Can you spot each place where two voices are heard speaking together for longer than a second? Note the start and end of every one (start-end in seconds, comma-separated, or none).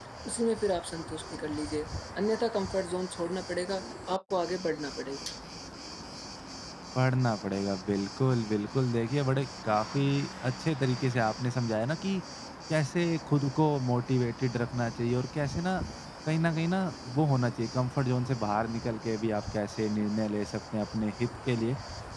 none